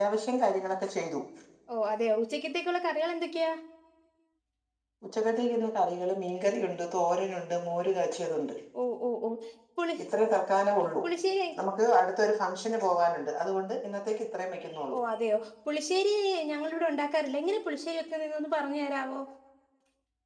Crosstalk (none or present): none